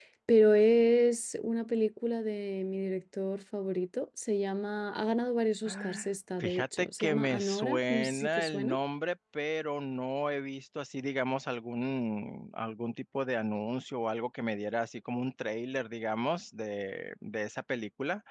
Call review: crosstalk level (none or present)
present